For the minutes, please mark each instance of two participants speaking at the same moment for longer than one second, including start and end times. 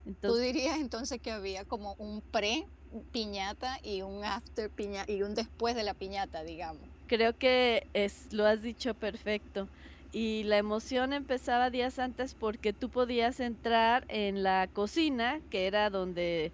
none

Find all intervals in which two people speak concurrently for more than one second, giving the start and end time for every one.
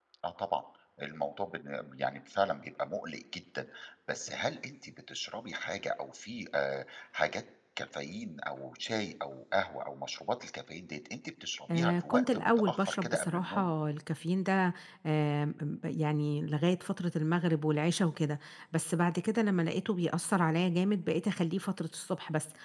11.7-13.7

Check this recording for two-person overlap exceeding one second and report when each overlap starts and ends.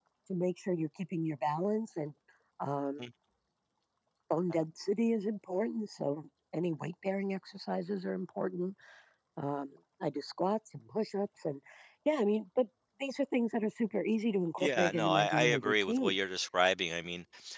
14.6-16.2

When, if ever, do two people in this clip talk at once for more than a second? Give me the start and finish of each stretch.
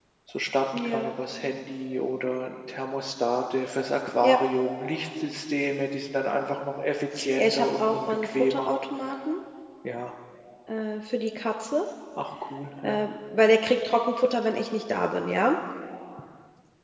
7.4-8.7

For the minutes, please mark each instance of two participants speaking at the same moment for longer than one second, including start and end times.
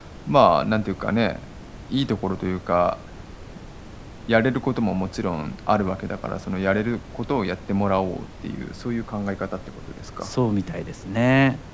none

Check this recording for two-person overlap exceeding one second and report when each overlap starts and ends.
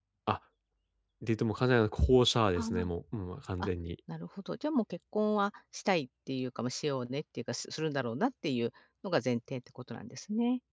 none

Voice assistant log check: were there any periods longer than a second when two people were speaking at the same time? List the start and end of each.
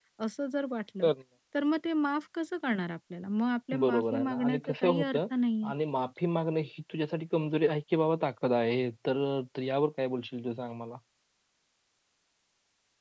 3.8-5.2

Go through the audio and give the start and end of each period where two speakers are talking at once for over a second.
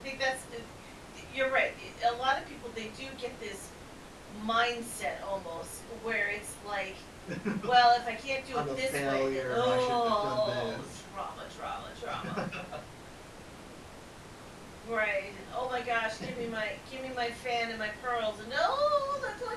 8.5-10.8

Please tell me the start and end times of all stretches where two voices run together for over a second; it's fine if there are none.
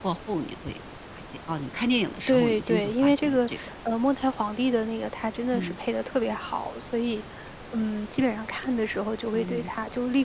2.3-3.6

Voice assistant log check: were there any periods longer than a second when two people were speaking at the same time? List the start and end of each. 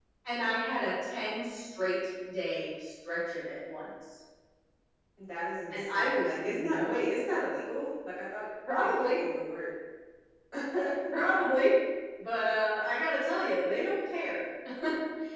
5.7-7.0

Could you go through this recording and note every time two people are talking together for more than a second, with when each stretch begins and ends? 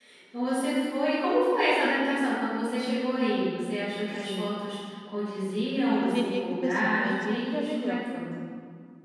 5.9-8.0

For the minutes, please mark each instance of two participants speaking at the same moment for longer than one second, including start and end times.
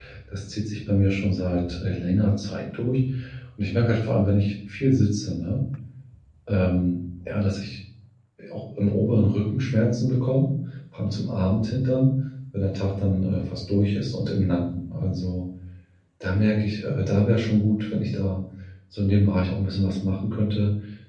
none

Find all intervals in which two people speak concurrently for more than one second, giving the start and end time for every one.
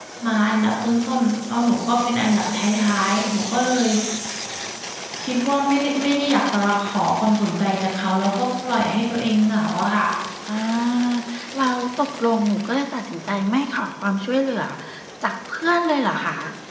none

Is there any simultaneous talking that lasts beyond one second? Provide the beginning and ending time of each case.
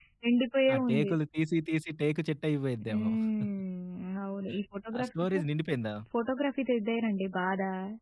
none

